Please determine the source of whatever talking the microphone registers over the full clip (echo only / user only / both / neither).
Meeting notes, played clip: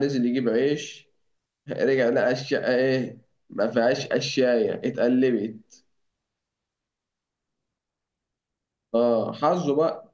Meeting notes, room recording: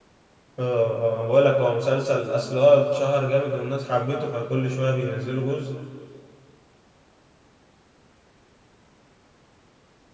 user only